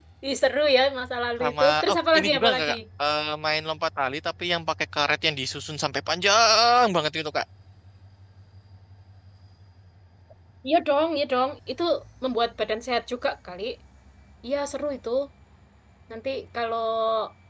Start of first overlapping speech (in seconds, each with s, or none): 1.4 s